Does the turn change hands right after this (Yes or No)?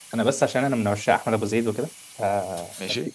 No